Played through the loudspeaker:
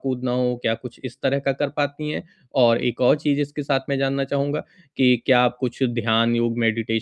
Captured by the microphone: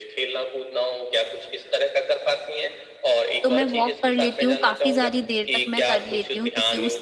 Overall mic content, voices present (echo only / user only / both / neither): both